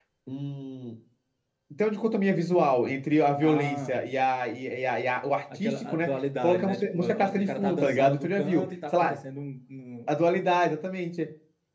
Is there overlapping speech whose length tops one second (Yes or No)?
Yes